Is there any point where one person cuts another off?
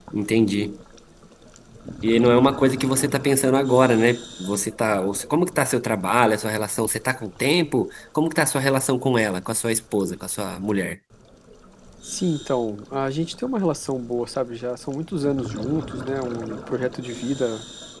No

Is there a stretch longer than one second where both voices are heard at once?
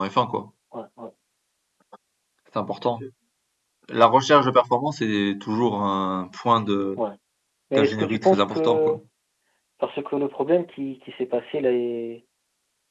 Yes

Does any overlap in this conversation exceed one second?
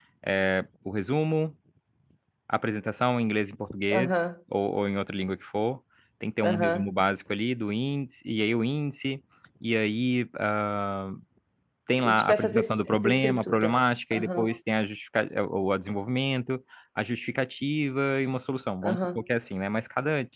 Yes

